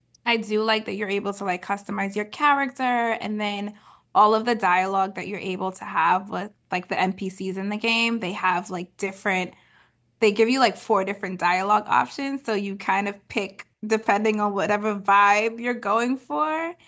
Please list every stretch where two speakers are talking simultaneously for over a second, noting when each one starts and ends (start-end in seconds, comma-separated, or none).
none